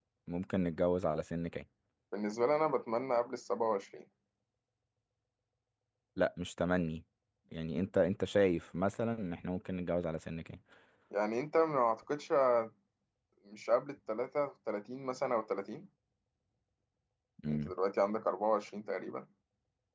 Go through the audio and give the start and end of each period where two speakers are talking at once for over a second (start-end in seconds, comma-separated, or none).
none